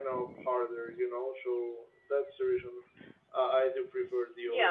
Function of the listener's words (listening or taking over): taking over